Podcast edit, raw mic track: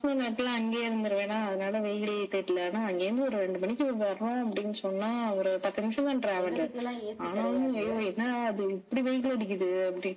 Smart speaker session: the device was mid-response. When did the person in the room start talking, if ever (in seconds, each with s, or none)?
6.4 s